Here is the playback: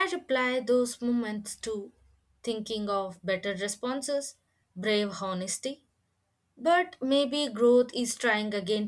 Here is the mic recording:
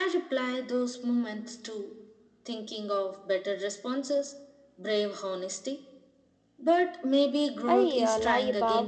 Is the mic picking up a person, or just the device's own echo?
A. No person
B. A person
B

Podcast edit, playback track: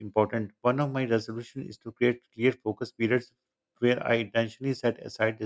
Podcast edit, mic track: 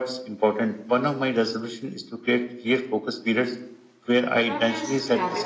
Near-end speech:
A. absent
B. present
B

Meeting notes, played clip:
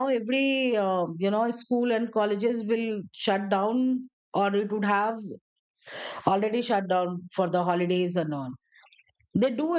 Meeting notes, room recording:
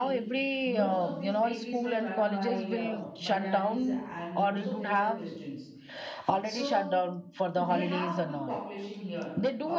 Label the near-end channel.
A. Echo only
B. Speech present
B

